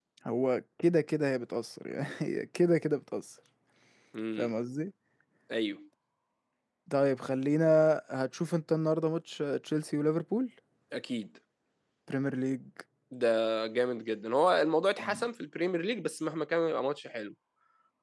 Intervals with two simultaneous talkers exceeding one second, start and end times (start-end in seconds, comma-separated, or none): none